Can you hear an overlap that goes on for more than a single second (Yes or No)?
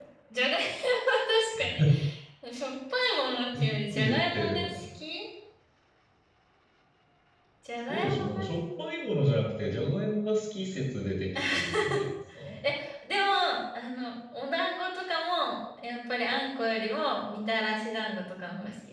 Yes